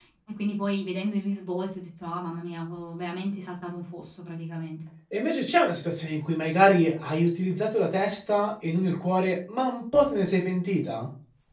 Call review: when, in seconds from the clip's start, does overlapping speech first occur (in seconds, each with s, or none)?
none